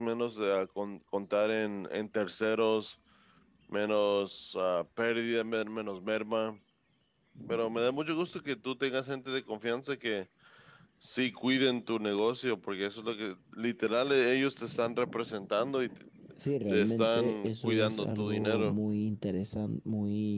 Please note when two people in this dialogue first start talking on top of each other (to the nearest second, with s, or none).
17 s